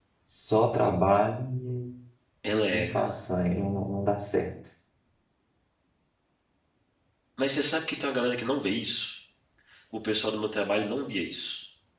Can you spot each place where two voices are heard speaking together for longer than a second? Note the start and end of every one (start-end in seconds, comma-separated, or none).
none